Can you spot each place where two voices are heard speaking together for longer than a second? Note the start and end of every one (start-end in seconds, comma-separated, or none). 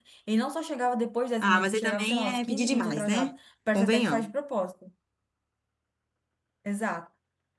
1.4-3.3